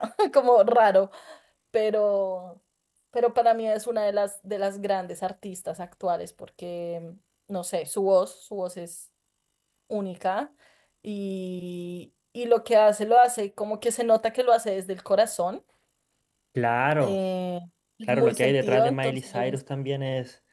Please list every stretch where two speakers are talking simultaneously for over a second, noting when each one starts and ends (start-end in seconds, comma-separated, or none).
18.1-19.6